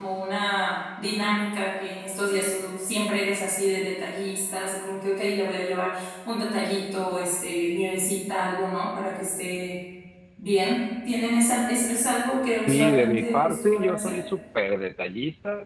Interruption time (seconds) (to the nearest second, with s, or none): 13 s